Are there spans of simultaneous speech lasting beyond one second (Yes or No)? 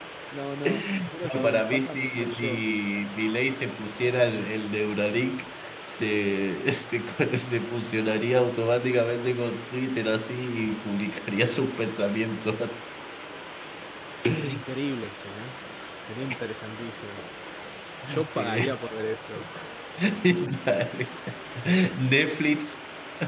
Yes